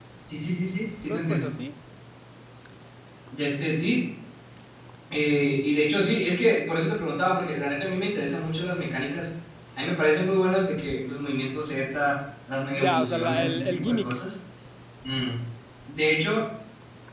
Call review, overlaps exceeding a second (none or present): present